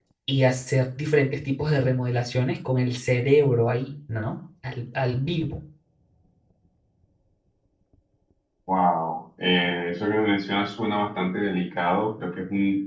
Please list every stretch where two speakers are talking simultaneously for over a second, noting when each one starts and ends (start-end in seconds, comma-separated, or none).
none